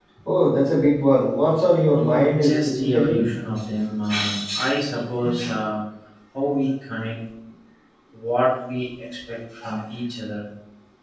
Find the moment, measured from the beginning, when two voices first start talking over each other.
2 s

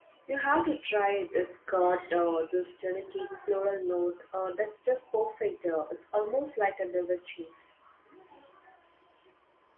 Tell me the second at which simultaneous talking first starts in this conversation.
none

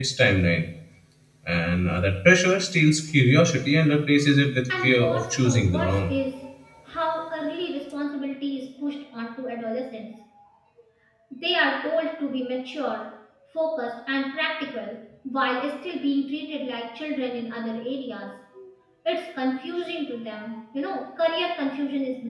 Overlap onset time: 5 s

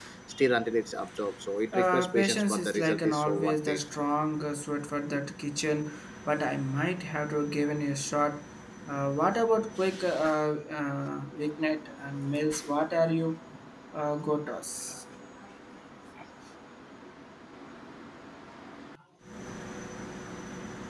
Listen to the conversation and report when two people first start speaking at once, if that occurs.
2 s

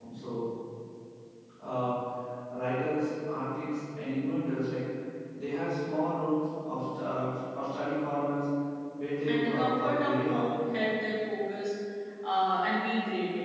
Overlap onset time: 9 s

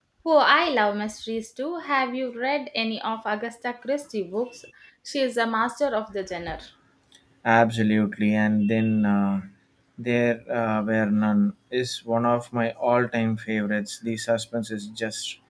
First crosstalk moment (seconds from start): none

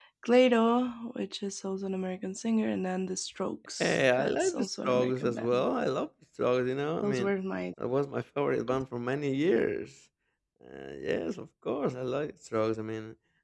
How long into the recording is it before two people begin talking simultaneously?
4 s

